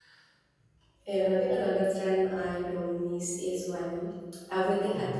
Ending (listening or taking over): listening